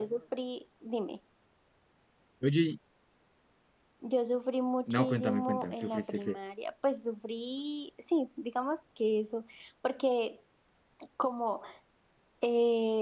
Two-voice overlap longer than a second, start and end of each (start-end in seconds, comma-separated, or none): 4.9-6.4